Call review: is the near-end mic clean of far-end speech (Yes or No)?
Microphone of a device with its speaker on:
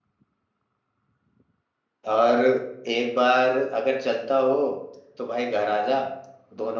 Yes